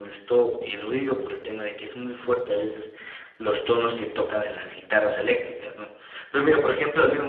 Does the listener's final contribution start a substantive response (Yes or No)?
No